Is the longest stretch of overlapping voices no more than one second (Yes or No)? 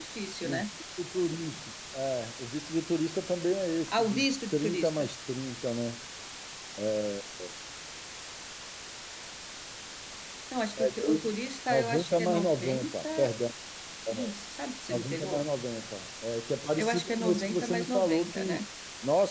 No